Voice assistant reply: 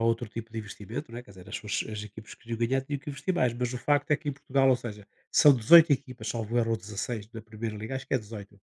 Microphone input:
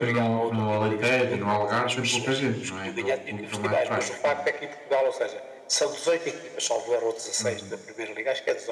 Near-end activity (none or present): present